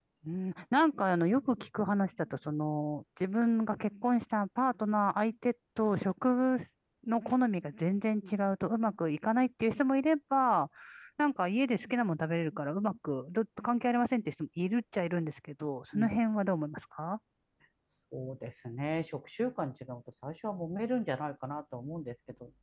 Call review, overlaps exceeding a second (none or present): none